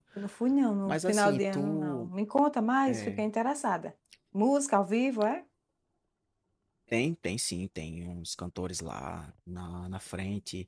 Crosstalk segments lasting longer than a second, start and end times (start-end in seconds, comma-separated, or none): 0.8-2.1